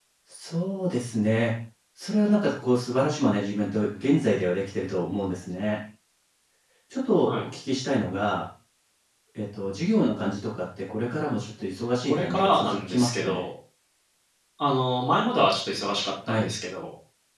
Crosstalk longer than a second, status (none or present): present